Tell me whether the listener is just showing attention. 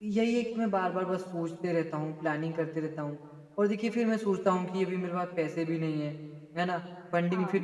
Yes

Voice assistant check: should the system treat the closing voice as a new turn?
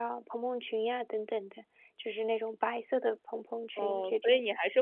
Yes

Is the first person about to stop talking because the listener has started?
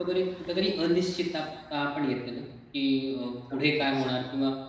No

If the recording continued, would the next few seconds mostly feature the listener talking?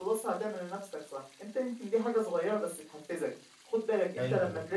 No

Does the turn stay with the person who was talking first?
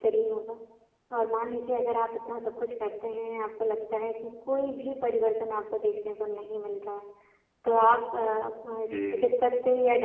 Yes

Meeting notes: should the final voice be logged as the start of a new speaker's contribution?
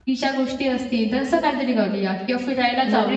Yes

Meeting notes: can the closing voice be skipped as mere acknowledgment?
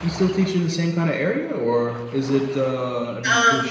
Yes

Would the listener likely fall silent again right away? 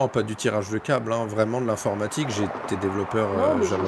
No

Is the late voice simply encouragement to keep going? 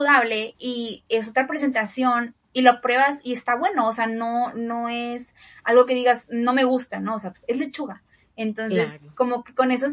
Yes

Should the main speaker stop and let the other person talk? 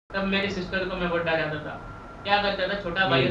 No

